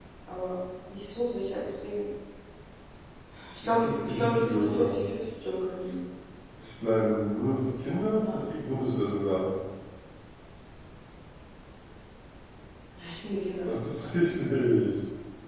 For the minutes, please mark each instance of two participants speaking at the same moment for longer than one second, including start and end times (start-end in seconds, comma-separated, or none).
3.6-5.0